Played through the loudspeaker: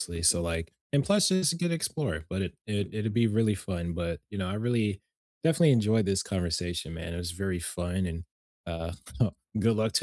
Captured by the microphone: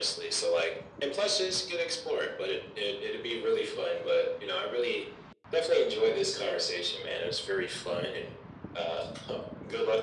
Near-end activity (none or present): none